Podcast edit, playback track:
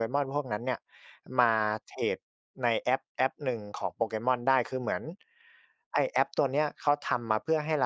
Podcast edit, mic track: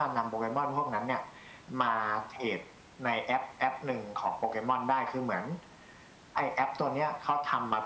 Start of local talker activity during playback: none

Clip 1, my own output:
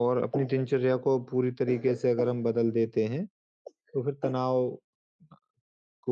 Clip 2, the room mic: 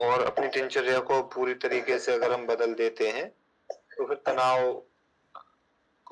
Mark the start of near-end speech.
none

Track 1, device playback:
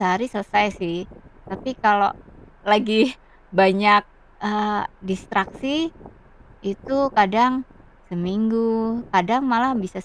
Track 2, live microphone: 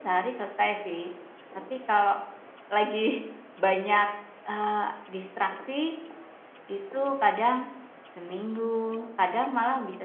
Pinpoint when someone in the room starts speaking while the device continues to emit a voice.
none

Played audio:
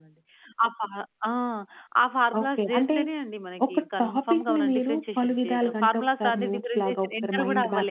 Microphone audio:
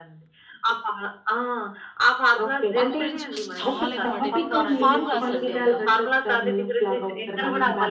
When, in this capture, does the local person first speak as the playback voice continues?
2.8 s

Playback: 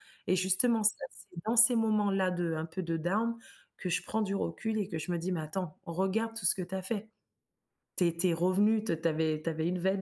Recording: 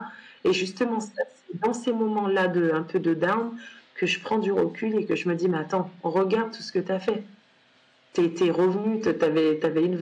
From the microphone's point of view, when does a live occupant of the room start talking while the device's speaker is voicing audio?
none

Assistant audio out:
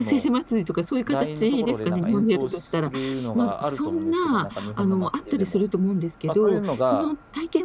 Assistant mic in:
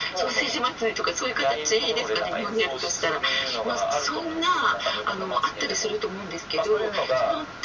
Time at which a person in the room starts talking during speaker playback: none

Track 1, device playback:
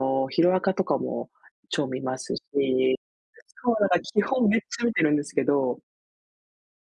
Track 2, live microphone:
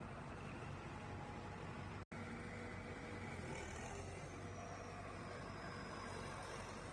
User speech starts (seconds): none

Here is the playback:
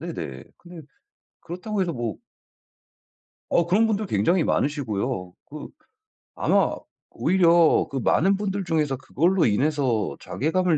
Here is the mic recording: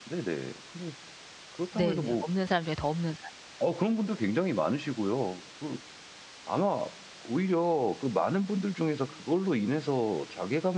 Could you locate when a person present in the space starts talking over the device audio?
1.7 s

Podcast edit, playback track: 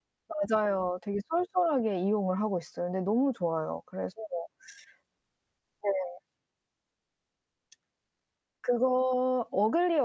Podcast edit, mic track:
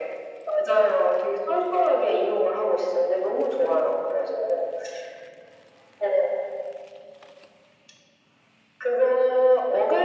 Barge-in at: none

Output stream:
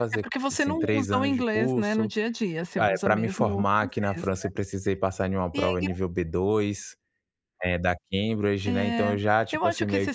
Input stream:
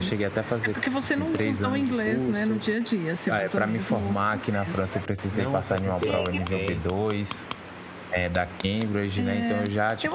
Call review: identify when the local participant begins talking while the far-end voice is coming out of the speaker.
5.3 s

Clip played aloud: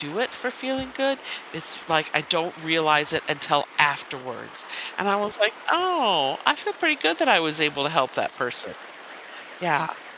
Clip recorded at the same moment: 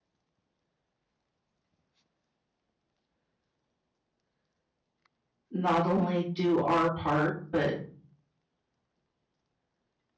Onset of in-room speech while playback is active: 5.5 s

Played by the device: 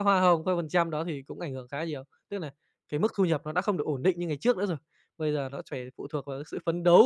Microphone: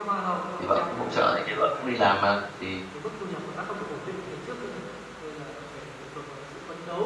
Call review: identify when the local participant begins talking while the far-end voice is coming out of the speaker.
0.6 s

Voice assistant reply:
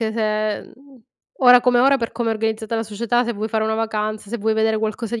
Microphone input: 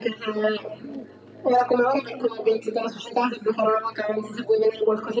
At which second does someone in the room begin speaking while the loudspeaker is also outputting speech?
none

